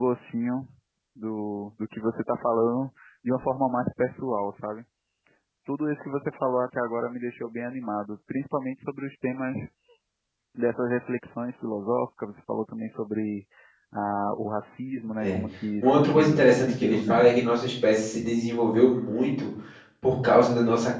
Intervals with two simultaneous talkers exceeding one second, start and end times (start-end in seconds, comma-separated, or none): 15.8-17.3